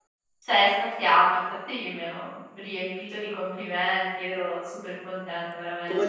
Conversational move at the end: taking over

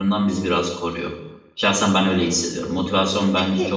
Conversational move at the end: listening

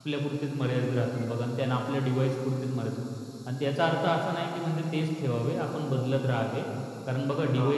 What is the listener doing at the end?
listening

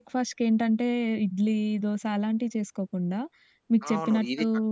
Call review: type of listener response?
taking over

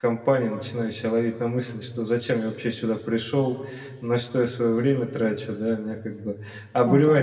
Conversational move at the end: listening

